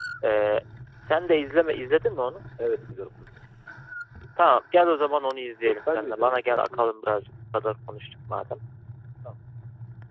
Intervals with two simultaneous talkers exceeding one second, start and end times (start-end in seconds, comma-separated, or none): 5.6-6.8